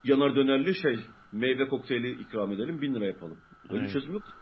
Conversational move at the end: listening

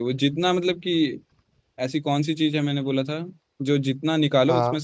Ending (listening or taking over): listening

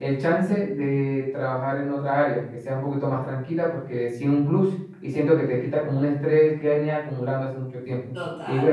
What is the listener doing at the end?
taking over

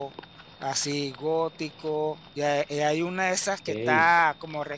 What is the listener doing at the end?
listening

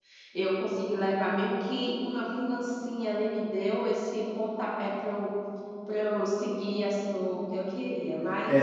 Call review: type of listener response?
taking over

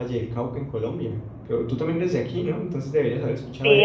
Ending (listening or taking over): taking over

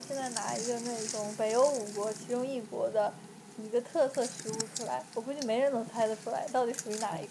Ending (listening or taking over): taking over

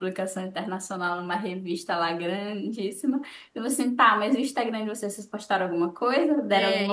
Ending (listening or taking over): taking over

